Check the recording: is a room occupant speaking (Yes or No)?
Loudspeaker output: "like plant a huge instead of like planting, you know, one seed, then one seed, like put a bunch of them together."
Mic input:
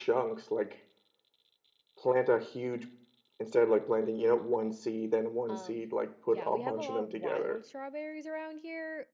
Yes